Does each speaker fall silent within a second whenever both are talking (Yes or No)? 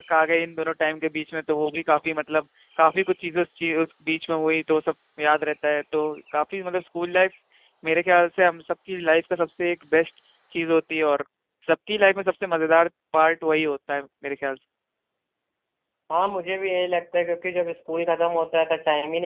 Yes